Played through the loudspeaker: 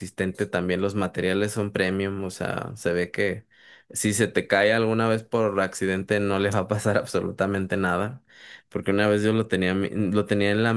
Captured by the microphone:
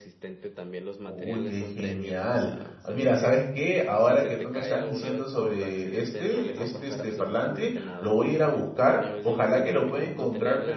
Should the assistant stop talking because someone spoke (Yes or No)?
Yes